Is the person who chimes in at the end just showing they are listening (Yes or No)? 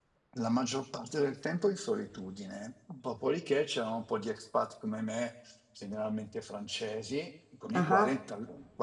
Yes